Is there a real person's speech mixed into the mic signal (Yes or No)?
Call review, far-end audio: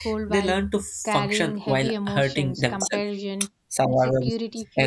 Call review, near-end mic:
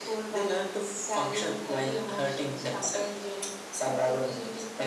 No